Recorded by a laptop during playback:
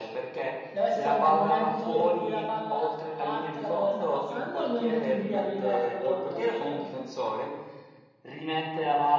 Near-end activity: none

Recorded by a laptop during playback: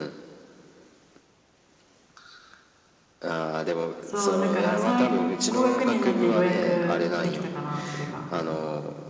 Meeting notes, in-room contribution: present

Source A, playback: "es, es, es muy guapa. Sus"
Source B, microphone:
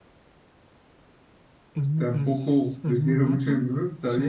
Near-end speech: present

